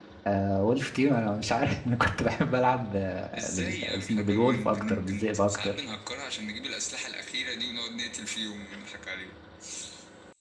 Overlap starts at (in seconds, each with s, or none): 3.3 s